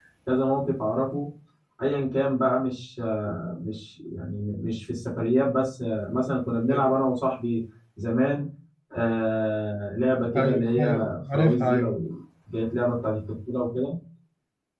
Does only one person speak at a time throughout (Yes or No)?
No